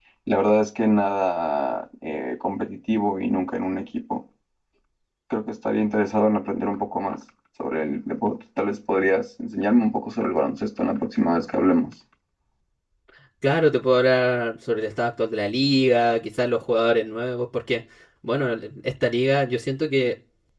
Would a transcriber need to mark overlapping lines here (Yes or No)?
No